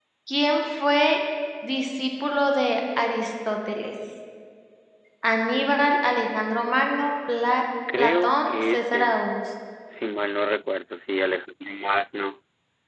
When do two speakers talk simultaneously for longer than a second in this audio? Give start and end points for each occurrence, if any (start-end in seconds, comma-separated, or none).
8.0-9.2